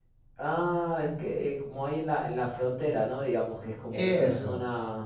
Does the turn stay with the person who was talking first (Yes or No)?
Yes